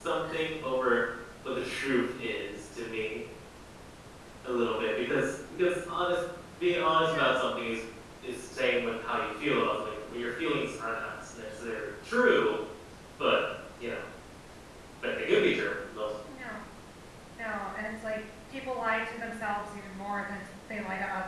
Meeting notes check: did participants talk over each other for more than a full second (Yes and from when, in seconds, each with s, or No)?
No